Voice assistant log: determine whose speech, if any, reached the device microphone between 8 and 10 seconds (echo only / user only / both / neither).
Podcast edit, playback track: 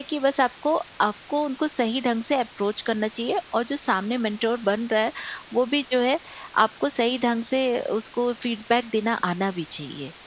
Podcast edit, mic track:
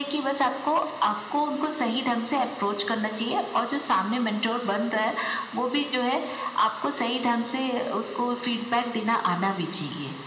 echo only